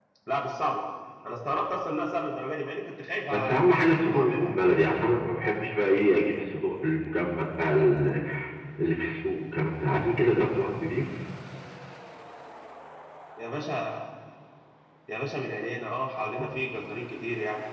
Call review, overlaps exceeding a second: present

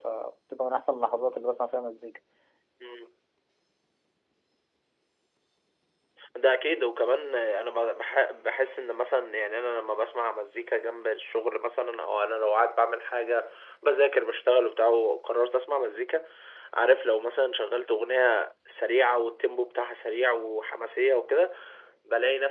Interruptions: none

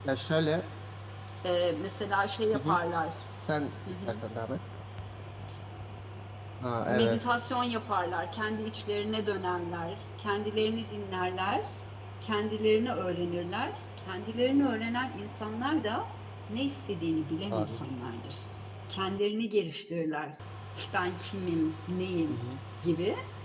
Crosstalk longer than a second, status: none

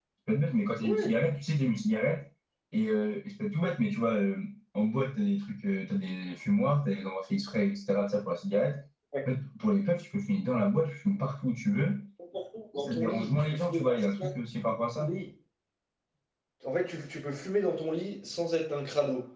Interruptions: present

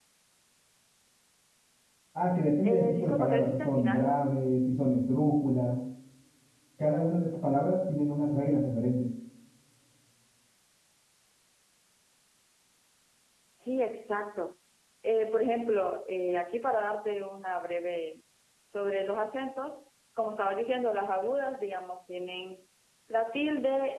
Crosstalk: present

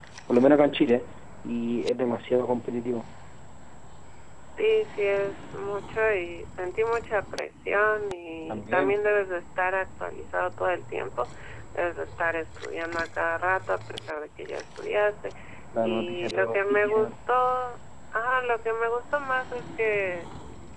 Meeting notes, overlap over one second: present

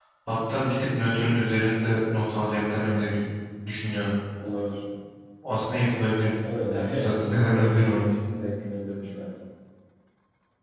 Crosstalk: present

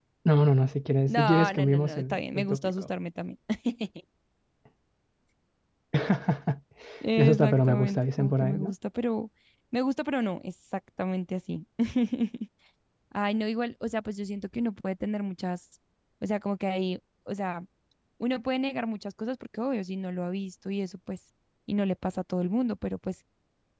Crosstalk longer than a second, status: present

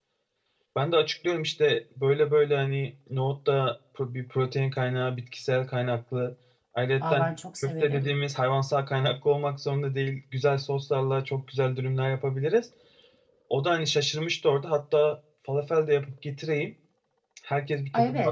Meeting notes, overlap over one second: none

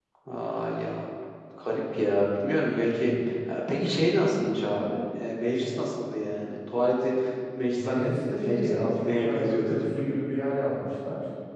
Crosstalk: present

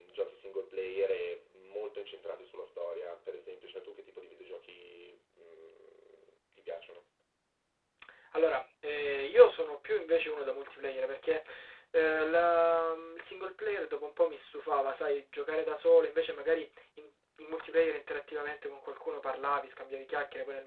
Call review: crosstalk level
none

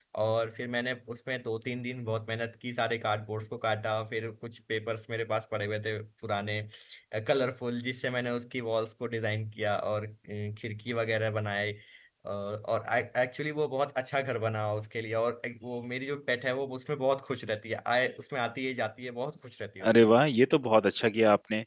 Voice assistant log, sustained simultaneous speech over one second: none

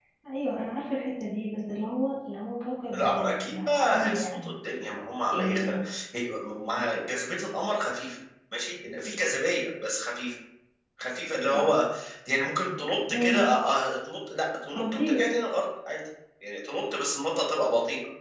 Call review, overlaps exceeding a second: present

